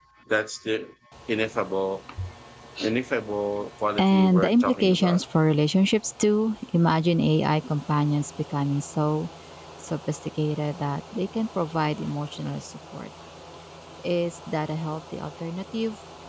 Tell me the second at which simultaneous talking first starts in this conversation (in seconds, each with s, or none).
4.0 s